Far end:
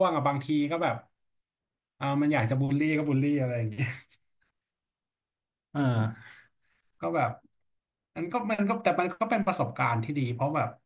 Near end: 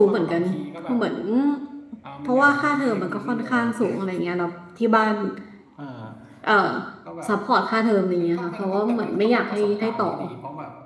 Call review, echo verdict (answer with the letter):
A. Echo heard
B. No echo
A